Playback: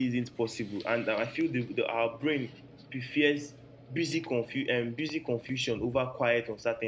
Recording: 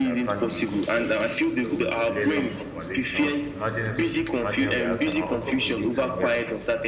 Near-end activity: present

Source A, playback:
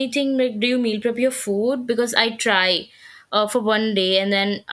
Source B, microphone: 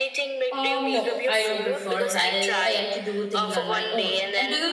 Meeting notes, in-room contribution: present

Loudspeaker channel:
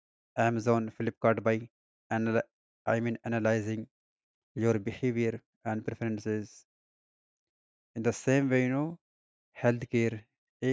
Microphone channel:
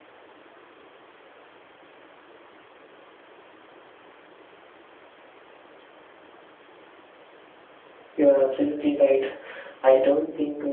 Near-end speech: present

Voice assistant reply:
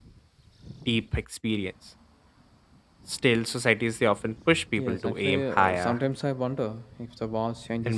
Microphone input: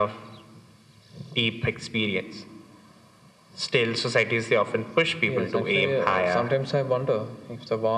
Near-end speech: none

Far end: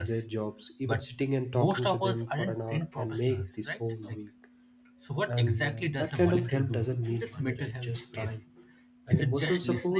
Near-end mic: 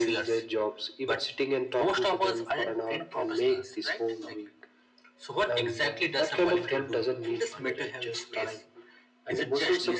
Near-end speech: none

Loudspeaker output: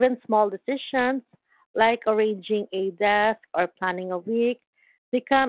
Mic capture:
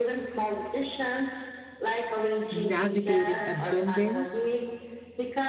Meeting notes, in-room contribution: present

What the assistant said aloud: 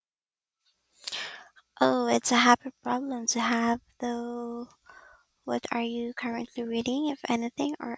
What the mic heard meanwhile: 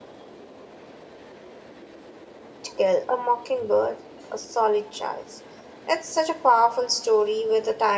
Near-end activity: present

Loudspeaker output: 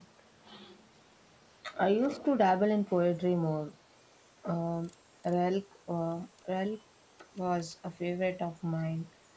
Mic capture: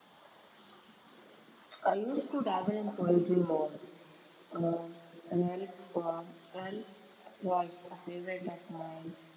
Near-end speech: none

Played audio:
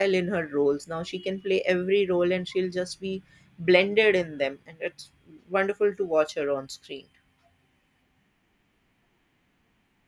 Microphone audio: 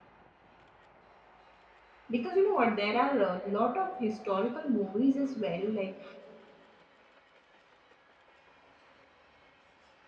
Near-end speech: present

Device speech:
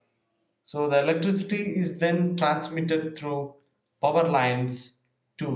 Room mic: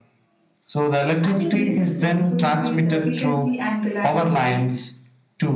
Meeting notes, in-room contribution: present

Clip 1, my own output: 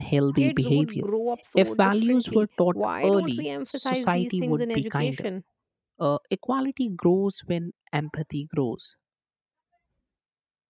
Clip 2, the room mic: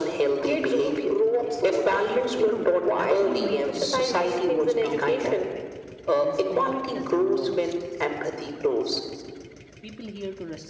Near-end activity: present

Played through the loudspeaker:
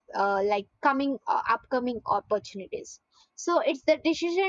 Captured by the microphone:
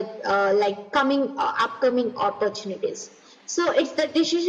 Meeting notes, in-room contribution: none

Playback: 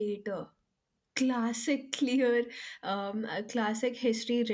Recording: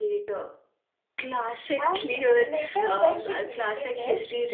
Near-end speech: present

